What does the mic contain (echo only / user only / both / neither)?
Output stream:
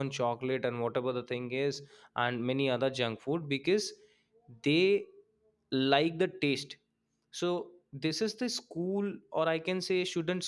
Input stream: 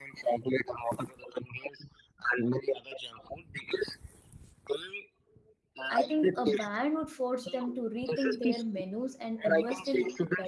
both